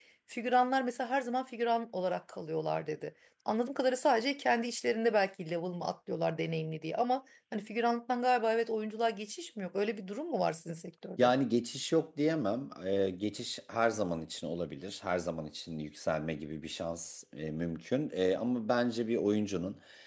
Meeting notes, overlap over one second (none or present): none